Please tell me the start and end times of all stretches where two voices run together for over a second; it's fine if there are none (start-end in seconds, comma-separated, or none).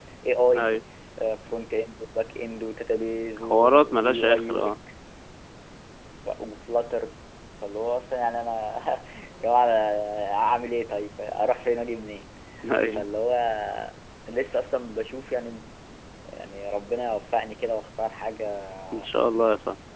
3.4-4.7